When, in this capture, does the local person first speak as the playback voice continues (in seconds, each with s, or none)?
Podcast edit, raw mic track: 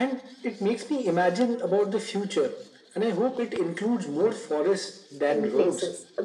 5.3 s